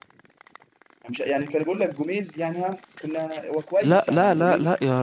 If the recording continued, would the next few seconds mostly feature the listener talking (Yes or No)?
Yes